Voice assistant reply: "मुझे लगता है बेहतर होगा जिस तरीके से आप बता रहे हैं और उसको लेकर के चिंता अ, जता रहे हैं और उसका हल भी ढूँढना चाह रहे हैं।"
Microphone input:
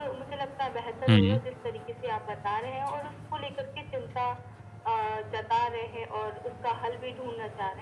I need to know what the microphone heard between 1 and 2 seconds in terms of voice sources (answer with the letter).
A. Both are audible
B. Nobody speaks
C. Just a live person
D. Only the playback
A